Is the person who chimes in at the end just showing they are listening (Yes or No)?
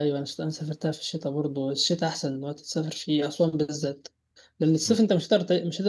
Yes